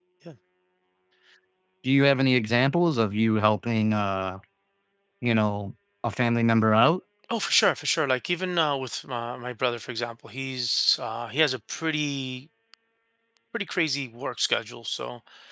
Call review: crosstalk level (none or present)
none